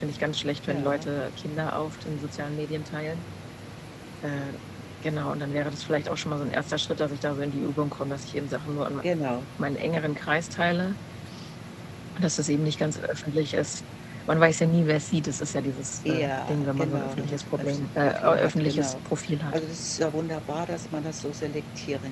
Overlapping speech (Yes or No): Yes